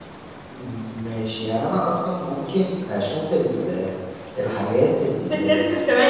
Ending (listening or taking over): taking over